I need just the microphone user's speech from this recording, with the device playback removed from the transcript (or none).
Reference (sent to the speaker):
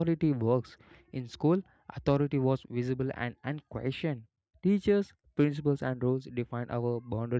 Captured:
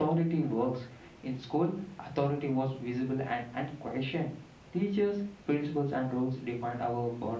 none